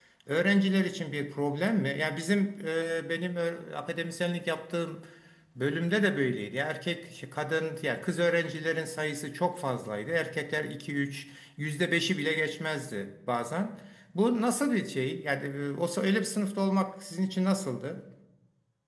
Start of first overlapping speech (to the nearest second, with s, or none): none